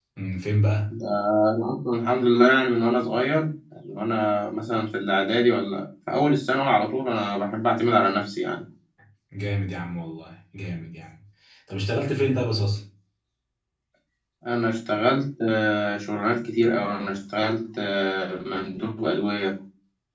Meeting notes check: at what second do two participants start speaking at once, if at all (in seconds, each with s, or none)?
none